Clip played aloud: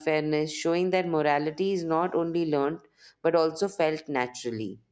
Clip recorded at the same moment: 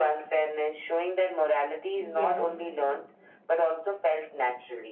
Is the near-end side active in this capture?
Yes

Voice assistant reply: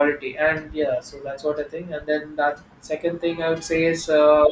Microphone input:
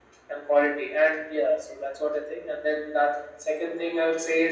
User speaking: No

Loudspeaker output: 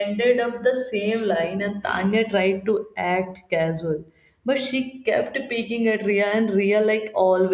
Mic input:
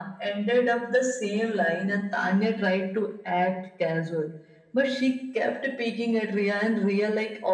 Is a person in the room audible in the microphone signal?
No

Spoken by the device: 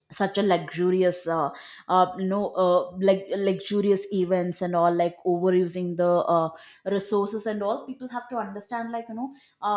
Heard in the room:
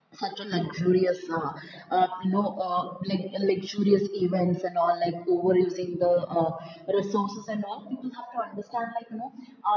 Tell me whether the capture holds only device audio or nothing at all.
Yes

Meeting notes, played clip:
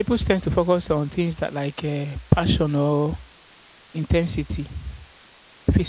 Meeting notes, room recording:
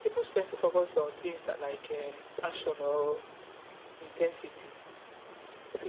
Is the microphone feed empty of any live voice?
Yes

